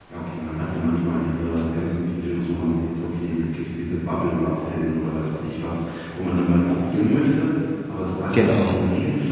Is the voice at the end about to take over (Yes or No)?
No